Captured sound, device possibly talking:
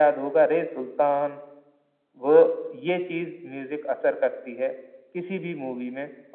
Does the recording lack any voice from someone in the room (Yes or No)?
Yes